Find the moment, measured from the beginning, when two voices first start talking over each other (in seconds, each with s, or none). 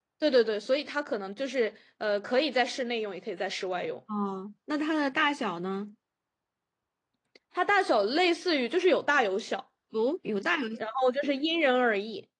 none